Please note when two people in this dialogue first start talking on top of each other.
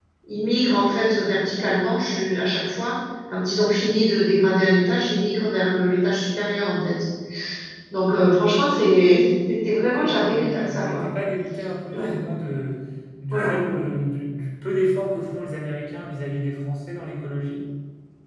9.8 s

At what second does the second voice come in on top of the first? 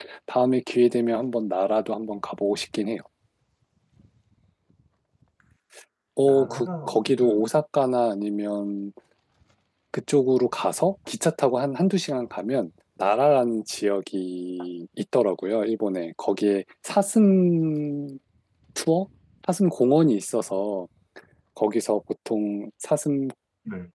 6.2 s

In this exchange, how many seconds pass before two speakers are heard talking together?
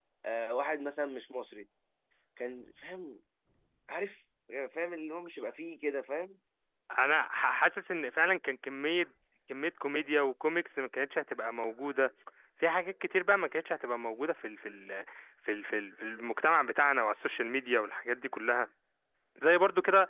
none

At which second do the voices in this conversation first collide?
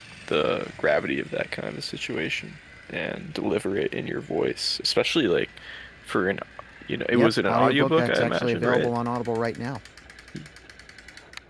7.1 s

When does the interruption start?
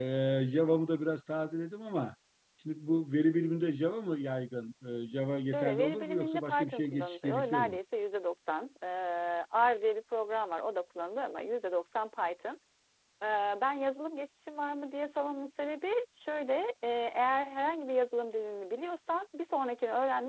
5.5 s

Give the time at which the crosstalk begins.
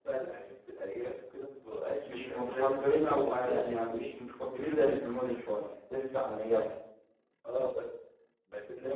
2.0 s

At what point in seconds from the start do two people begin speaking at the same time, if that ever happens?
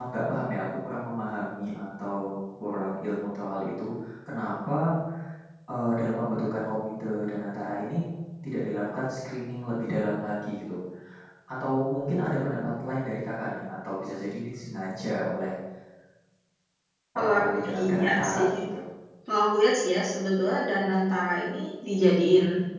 17.2 s

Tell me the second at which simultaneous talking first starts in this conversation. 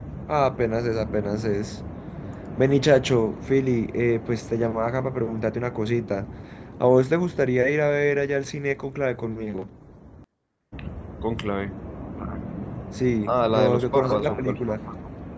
13.3 s

